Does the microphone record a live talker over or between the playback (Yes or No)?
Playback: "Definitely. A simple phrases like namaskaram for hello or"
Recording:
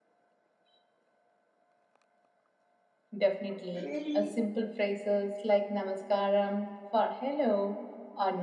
Yes